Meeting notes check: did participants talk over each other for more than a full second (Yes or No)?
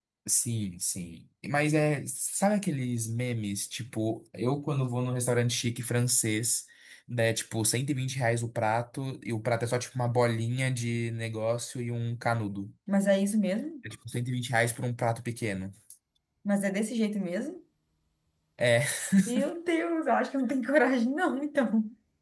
No